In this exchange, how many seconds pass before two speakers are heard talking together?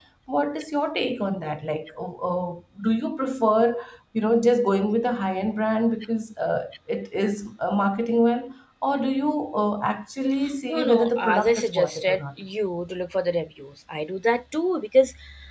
10.7 s

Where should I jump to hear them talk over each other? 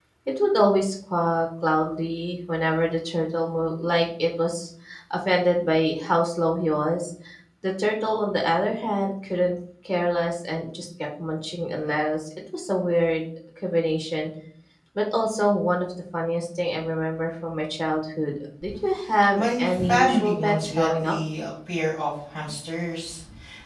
19.4 s

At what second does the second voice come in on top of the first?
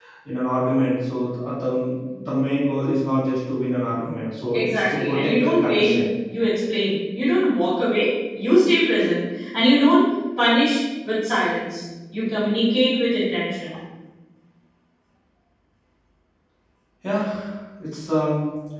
4.5 s

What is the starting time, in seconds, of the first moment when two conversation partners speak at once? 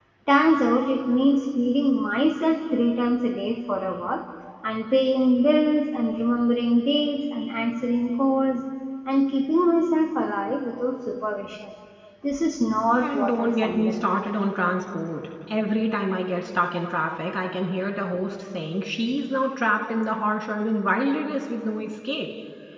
13.0 s

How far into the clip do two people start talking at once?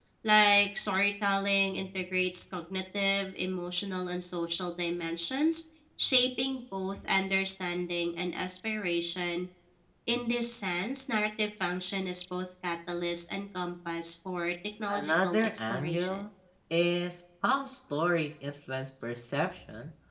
14.9 s

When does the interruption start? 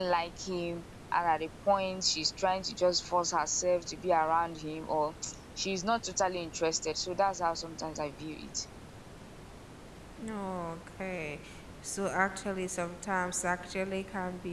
none

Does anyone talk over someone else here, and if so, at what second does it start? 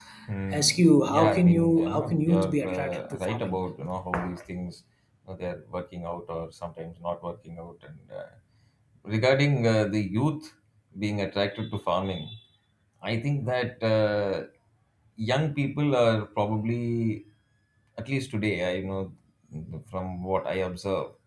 0.5 s

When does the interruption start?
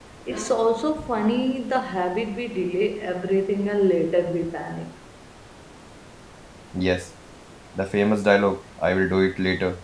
none

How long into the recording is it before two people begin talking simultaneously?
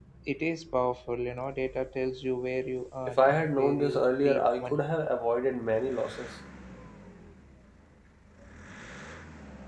3.1 s

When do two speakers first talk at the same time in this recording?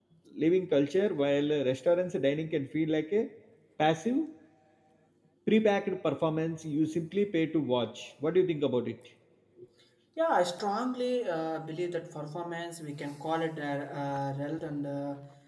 none

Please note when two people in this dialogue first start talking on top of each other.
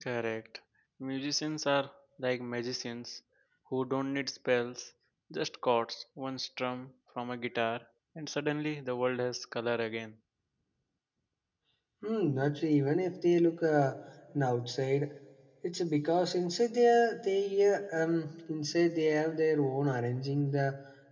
none

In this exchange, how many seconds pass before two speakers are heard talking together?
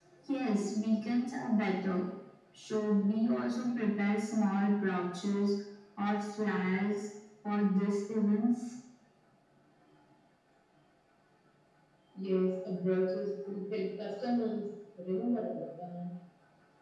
none

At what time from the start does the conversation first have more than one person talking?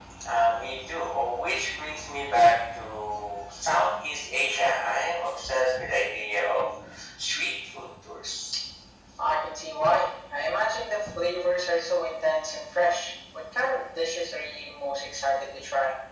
none

